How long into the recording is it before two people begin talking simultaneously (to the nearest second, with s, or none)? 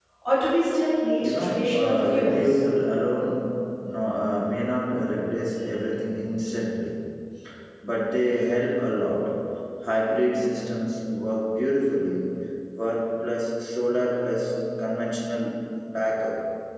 1 s